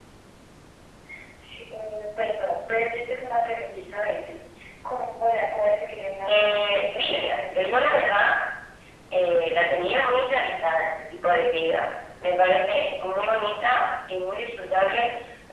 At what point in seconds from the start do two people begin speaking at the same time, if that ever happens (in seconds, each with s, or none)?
6.3 s